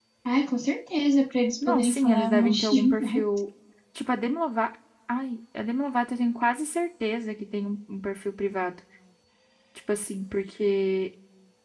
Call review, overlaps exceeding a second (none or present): present